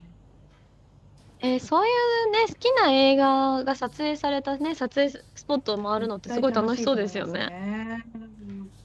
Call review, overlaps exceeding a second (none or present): present